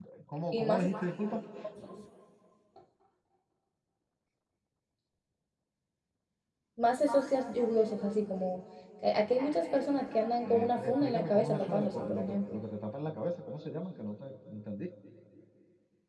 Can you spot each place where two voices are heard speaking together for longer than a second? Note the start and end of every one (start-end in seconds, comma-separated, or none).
10.4-12.6